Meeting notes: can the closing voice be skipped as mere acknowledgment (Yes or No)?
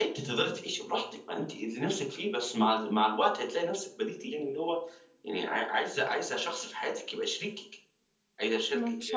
No